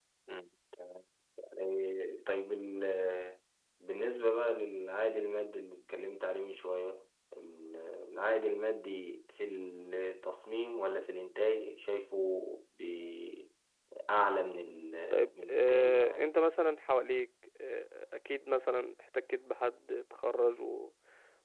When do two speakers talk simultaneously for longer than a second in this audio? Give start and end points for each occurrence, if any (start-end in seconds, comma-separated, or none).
15.1-16.3